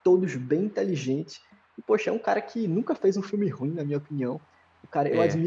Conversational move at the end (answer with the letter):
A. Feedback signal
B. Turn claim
A